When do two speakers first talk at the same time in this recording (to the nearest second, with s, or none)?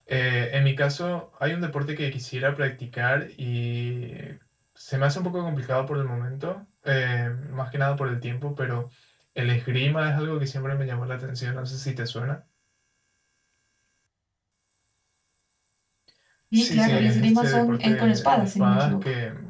17 s